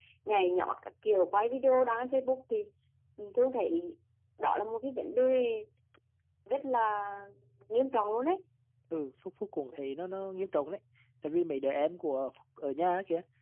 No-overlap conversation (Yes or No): Yes